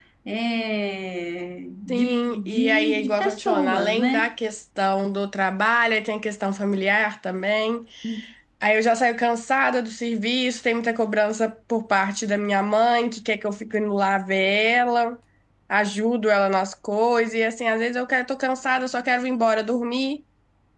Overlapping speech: Yes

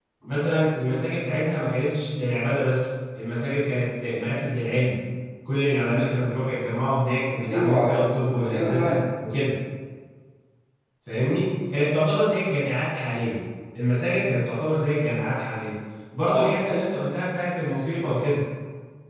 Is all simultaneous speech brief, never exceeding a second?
No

